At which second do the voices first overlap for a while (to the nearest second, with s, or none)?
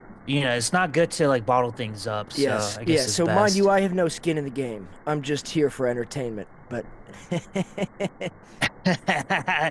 2 s